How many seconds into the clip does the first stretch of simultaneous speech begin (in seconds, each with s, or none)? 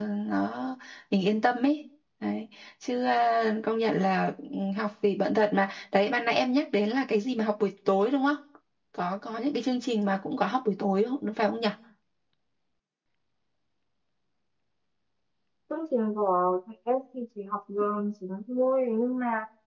none